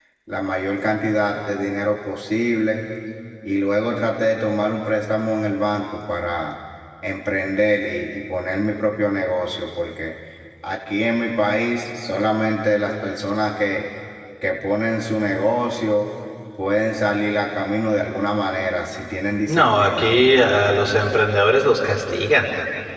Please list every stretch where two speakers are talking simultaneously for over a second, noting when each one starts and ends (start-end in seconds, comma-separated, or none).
19.5-20.9